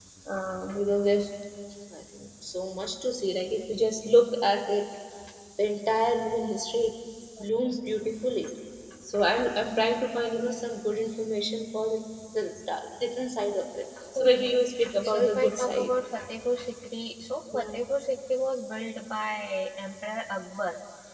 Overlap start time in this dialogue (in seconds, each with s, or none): 14.2 s